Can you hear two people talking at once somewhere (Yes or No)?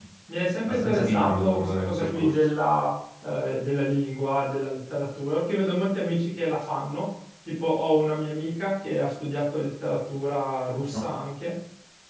Yes